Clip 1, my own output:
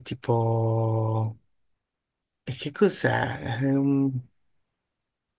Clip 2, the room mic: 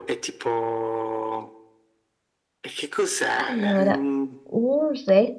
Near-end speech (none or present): present